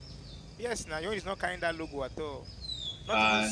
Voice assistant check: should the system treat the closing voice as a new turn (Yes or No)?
Yes